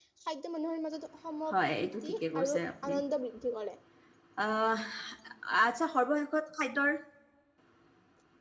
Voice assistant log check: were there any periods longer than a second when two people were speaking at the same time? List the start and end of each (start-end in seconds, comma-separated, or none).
1.5-2.9